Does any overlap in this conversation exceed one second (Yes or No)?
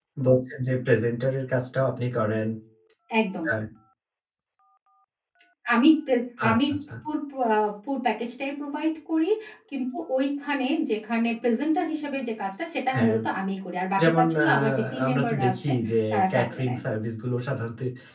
Yes